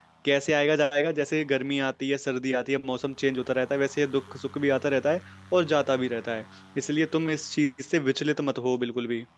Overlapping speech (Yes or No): No